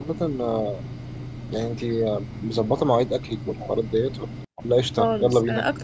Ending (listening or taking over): taking over